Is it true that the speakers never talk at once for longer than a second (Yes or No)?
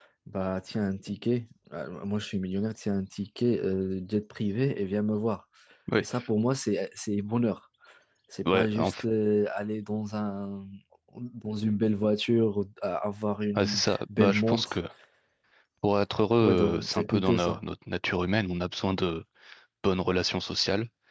No